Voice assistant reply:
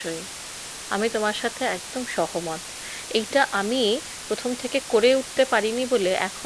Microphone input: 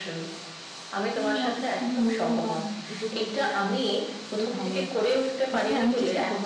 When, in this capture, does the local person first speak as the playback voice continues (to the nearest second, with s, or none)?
1 s